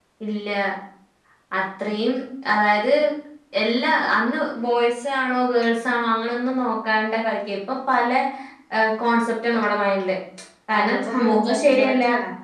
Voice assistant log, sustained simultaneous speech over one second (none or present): present